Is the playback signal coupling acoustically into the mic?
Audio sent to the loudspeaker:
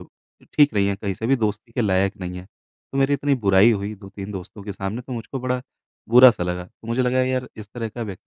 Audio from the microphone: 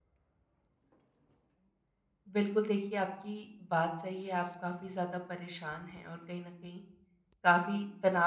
No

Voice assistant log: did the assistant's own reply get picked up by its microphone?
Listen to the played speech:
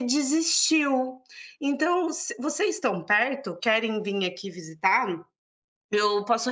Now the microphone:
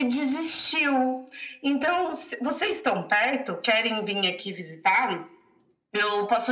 Yes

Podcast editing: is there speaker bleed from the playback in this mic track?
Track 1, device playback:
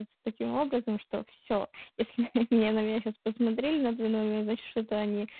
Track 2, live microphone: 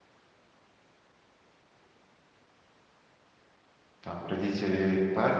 No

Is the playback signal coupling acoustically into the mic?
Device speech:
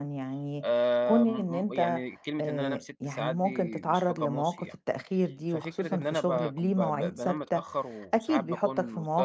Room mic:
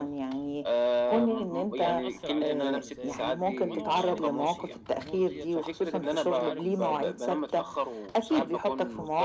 Yes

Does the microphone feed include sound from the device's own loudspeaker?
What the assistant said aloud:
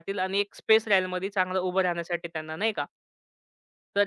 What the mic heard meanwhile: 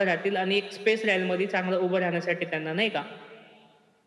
Yes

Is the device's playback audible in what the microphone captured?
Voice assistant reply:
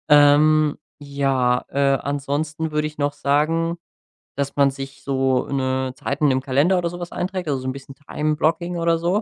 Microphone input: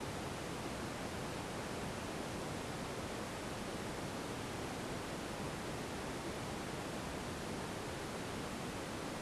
No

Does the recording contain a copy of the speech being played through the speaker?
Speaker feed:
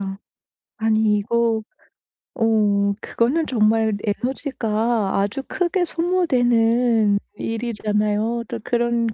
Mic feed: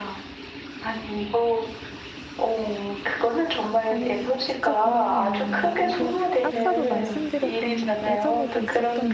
Yes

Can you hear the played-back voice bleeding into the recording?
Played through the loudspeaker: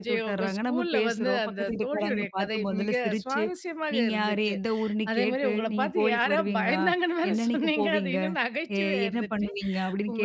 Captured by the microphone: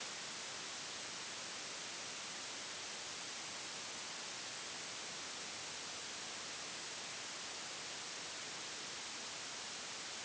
No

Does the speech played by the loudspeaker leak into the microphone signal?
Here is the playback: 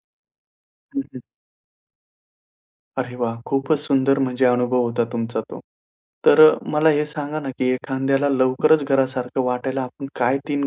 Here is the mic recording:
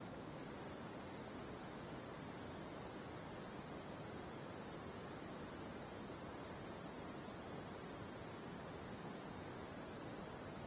No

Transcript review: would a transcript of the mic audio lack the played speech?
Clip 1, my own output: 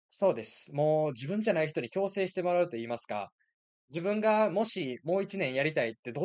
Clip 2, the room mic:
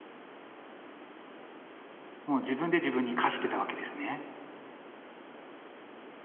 Yes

